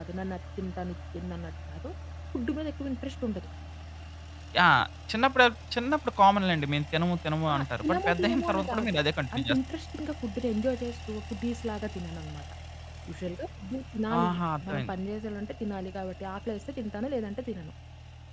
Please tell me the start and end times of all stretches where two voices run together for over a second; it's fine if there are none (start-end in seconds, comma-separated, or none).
7.5-9.0